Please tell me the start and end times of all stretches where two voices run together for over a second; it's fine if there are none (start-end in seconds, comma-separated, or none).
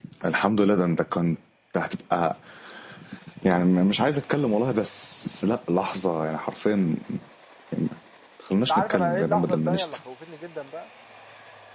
8.7-10.0